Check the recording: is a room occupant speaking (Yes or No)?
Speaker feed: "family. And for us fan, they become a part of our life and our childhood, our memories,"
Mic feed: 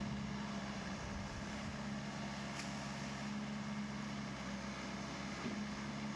No